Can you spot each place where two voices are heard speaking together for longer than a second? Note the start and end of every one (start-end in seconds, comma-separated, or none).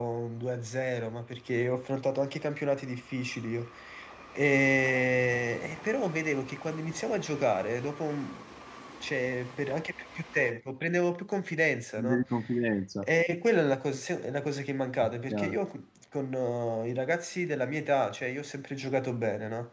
none